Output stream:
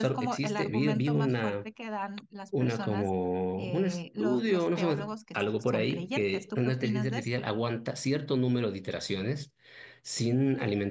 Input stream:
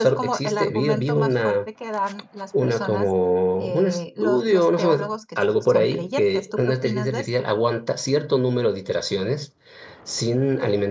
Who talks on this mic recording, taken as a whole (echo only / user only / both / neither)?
echo only